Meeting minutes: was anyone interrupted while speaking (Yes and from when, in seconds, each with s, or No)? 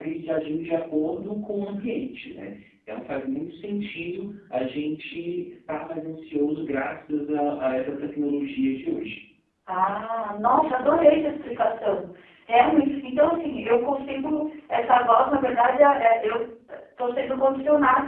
No